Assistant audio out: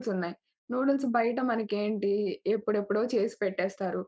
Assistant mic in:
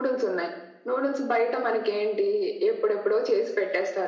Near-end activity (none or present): none